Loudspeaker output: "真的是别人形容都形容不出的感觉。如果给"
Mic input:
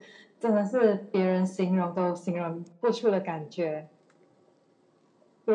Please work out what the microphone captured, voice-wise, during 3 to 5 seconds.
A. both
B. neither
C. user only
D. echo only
D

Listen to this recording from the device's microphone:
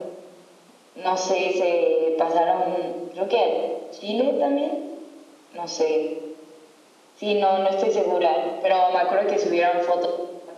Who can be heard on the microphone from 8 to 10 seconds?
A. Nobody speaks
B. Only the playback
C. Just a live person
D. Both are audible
B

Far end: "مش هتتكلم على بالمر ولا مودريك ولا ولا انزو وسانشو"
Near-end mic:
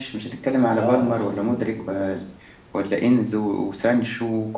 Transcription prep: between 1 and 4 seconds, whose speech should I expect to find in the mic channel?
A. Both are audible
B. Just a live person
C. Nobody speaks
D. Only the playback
A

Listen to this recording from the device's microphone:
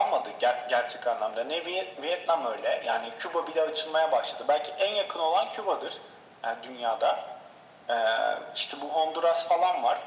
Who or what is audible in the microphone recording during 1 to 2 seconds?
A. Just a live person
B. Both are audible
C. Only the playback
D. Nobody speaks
C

